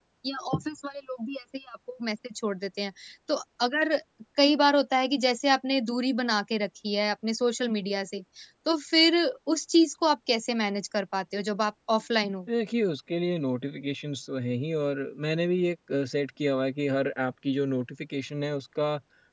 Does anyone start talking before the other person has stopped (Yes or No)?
No